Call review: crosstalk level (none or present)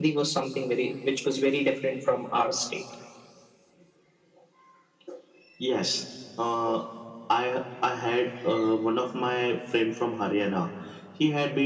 none